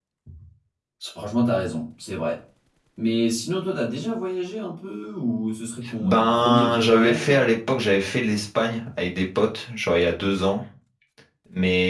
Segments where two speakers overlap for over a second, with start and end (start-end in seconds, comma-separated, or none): 6.0-7.4